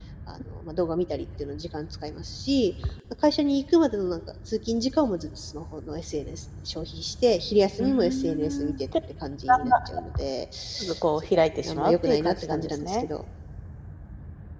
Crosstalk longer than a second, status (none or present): present